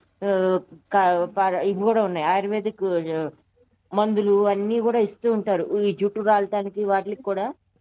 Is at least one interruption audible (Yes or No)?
No